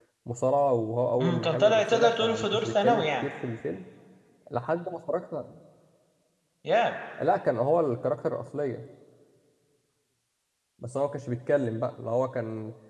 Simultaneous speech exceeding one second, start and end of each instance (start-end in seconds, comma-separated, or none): 1.2-3.3